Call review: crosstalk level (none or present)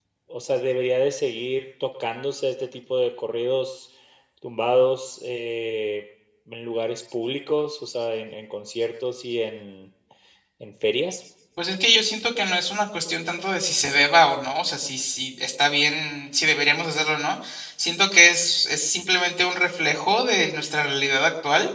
none